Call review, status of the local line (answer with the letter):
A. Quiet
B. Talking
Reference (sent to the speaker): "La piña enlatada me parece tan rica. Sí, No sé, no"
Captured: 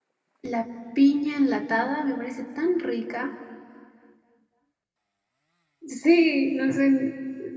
A